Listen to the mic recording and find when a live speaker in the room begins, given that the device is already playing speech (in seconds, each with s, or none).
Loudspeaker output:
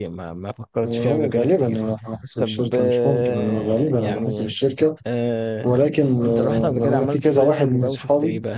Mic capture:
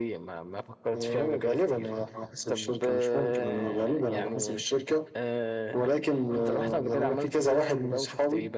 none